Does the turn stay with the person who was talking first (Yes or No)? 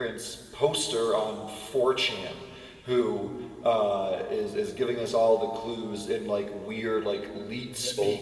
Yes